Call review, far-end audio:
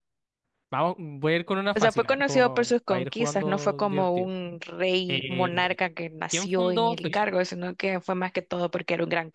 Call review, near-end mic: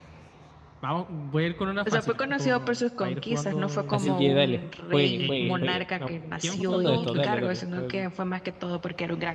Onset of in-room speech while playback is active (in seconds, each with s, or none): 3.8 s